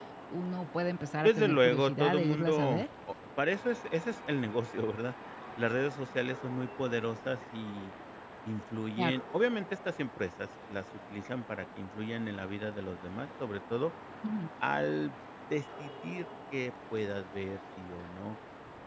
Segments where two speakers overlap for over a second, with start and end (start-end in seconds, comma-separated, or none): 1.2-2.8